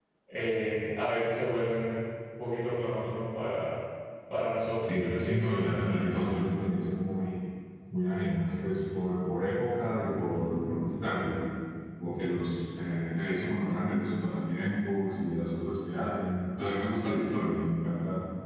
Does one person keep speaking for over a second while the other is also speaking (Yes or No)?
Yes